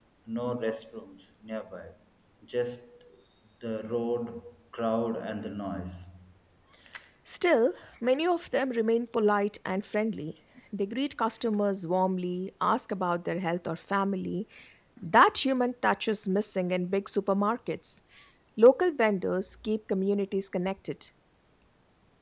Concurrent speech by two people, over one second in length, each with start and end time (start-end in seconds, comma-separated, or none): none